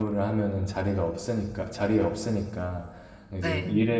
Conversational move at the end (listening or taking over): listening